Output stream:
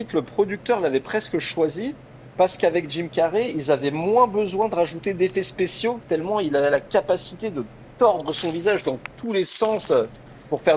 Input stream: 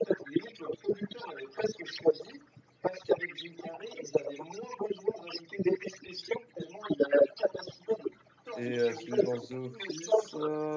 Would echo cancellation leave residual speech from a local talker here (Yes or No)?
Yes